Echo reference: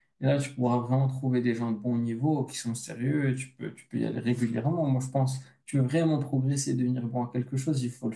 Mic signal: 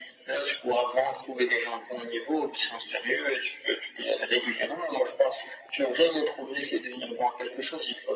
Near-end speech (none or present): none